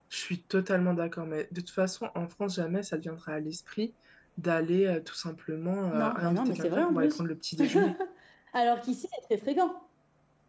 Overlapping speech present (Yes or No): Yes